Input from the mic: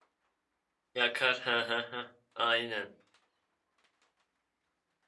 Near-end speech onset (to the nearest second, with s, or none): 1 s